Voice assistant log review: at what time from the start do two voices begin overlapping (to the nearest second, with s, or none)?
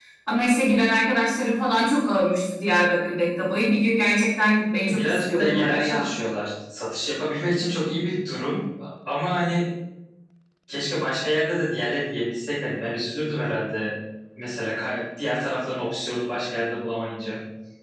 5 s